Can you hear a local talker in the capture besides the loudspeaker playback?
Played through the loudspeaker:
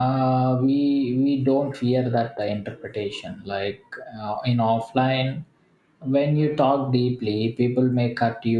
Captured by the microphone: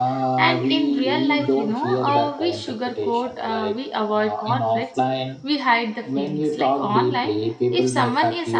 Yes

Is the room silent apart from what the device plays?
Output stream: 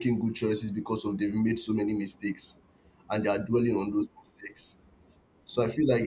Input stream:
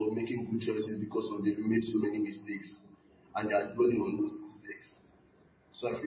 Yes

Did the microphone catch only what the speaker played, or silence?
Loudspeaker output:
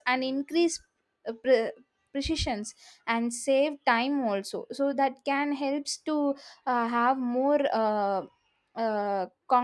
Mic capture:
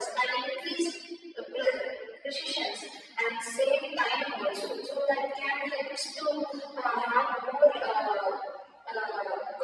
Yes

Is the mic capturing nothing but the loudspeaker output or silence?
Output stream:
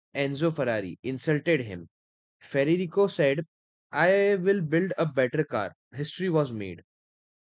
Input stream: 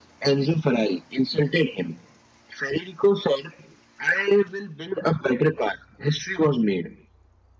Yes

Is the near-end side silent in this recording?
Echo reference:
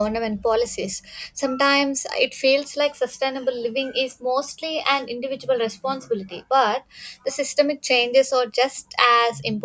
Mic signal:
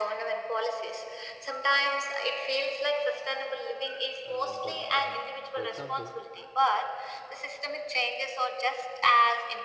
No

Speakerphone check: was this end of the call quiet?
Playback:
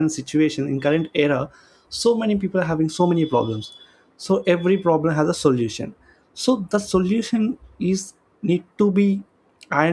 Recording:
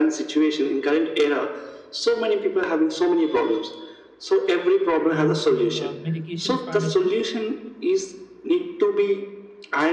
No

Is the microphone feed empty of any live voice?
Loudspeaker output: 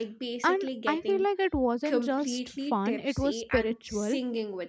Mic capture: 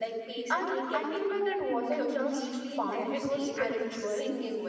Yes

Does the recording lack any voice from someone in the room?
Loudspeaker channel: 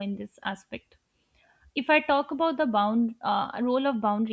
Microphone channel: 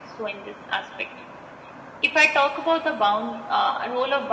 Yes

